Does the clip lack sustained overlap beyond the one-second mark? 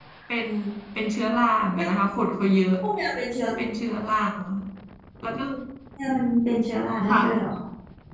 Yes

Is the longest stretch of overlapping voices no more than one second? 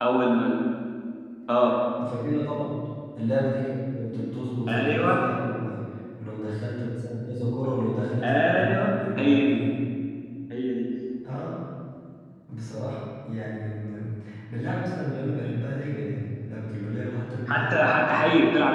No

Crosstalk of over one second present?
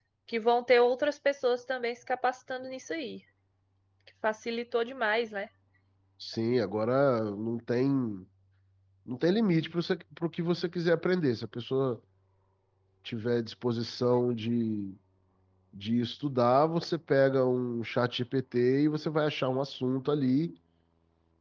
No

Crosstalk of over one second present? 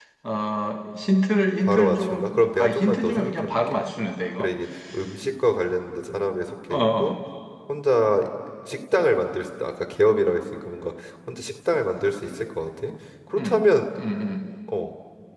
Yes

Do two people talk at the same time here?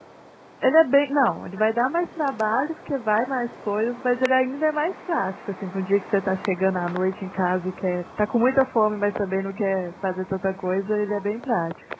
No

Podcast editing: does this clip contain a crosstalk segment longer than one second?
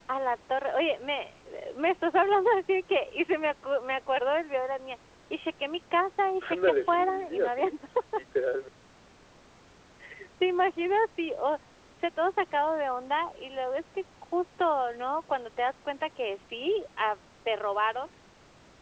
Yes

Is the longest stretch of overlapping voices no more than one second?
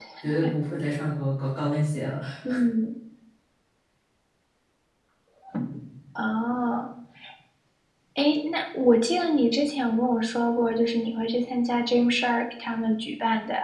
Yes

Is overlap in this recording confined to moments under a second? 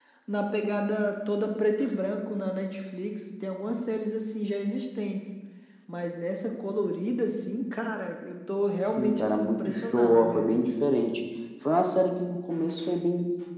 No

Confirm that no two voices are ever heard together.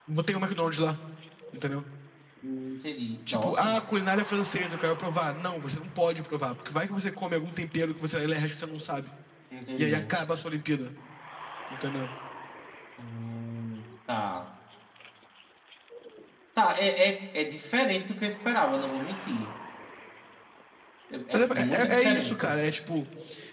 No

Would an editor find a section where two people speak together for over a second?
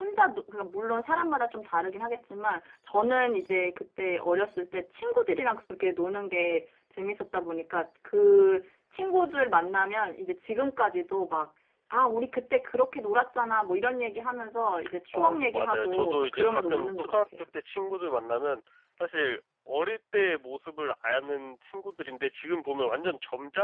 Yes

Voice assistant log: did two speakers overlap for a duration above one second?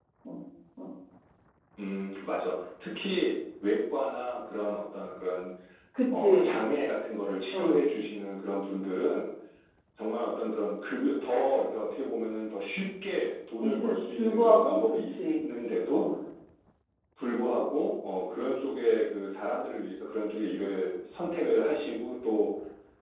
Yes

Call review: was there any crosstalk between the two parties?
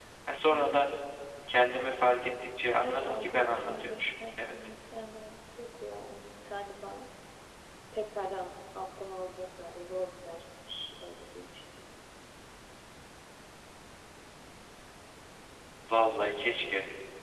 Yes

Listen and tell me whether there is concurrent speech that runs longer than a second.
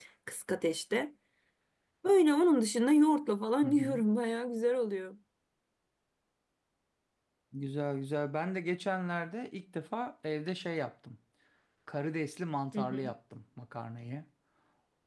No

